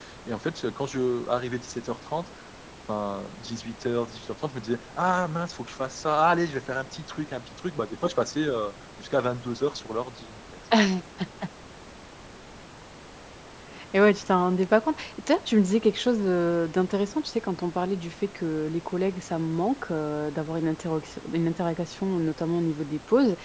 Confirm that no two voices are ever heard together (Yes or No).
Yes